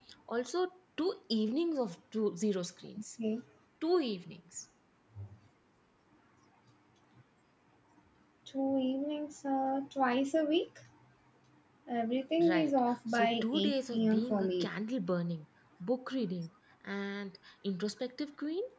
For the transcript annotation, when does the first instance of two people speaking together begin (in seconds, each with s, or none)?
12.5 s